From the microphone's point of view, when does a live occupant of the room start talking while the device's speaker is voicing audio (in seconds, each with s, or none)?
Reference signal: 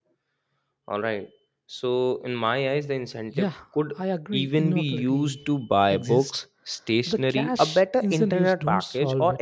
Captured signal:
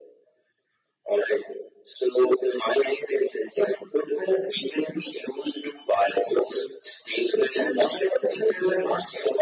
none